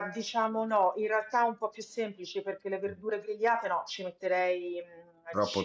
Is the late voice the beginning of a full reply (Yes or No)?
No